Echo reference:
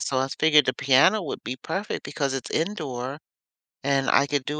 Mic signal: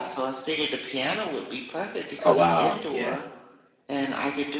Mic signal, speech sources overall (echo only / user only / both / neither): both